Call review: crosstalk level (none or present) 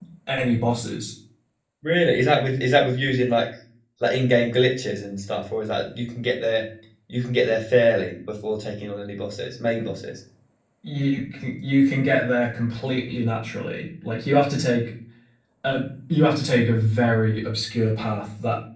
none